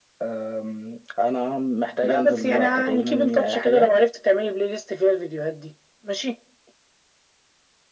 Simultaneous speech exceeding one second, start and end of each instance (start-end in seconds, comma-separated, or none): 2.0-3.9